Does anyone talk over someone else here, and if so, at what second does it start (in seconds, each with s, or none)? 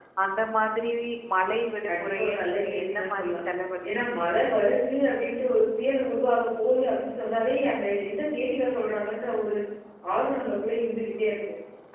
1.9 s